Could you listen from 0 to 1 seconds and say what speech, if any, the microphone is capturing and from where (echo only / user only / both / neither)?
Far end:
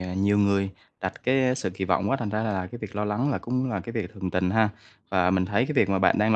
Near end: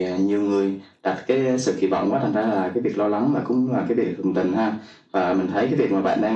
echo only